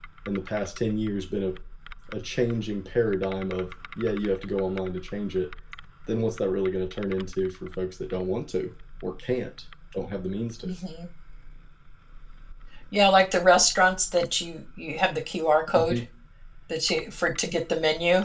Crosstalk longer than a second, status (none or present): none